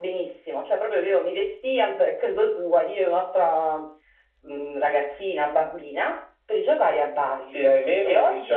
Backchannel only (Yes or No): No